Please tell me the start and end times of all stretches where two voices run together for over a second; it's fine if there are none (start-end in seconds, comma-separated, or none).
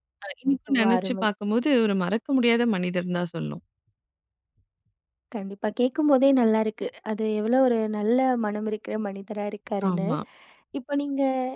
none